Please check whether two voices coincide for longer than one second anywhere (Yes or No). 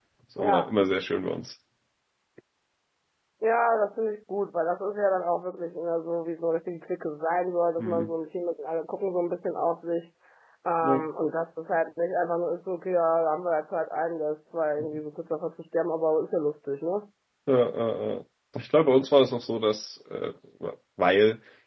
No